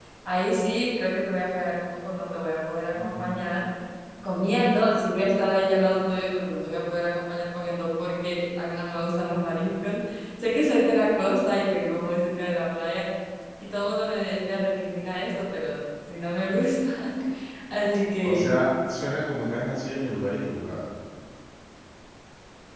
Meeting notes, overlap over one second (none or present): none